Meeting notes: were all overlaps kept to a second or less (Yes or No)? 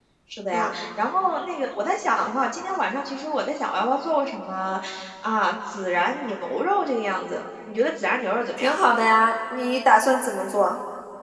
Yes